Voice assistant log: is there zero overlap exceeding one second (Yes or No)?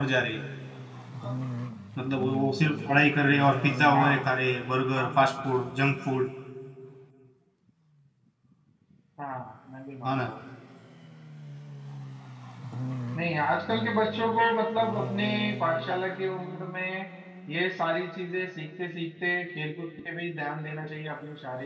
Yes